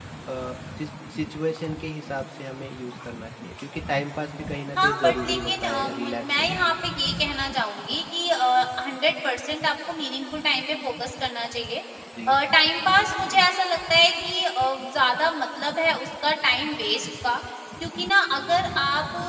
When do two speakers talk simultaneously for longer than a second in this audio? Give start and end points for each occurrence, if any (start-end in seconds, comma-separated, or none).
4.8-6.8